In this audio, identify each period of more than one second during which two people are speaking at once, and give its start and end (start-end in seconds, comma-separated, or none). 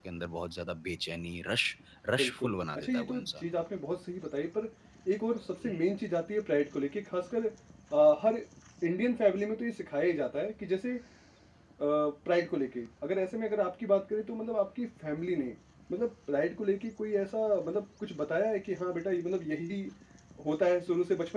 2.2-3.4